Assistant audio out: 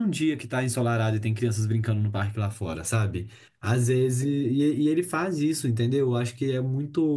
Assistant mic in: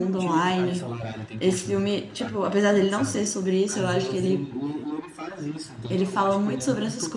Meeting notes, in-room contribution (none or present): present